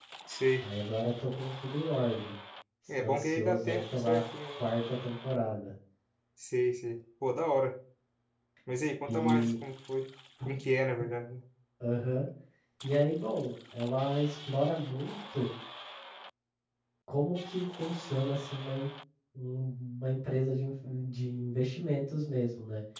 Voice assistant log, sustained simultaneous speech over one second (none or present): present